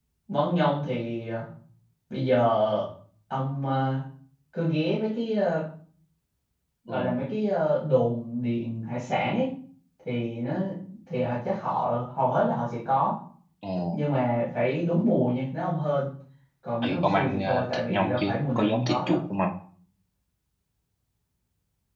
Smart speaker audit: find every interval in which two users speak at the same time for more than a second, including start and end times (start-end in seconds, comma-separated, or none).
16.8-19.2